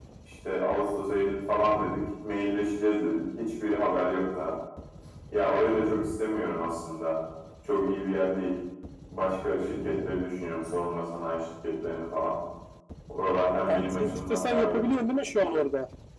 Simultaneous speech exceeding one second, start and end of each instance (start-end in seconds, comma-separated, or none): 13.7-14.9